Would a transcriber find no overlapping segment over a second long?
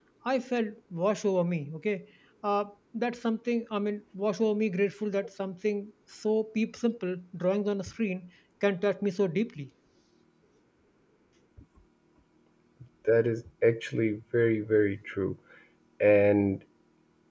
Yes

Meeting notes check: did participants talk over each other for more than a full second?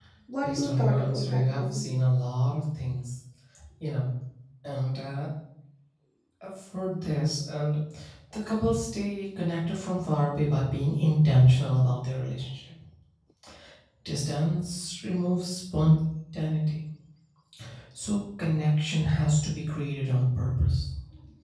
Yes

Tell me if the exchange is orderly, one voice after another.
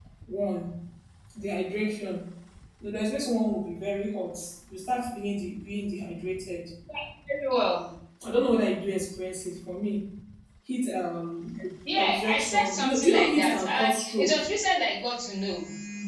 No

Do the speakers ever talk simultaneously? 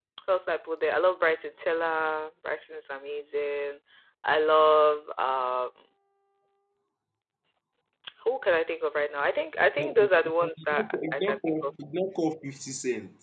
Yes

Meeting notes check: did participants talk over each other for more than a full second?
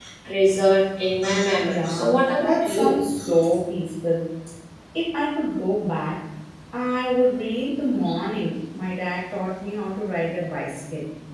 Yes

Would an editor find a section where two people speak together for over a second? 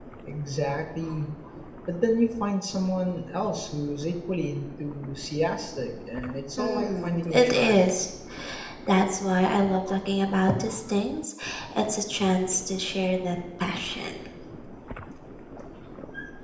Yes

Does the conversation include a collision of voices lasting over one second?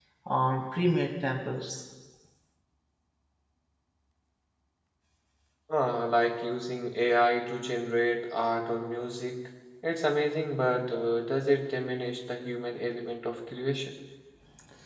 No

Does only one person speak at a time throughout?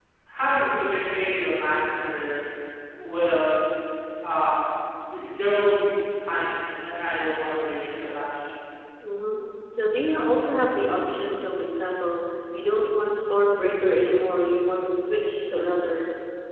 Yes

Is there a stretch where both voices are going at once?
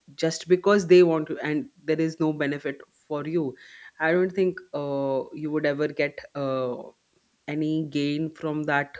No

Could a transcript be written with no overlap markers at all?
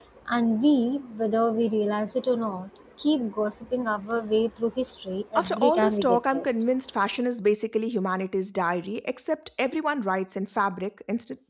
No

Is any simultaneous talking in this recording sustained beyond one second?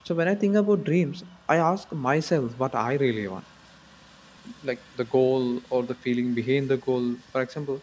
No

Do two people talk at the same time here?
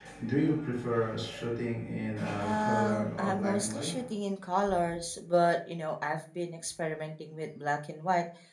Yes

